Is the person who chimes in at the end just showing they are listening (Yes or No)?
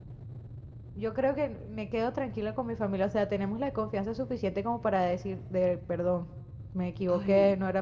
Yes